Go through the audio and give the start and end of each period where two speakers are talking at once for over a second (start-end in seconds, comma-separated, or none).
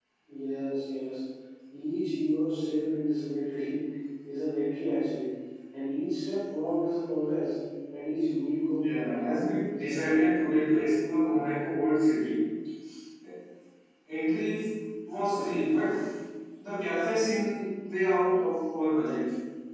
8.8-10.3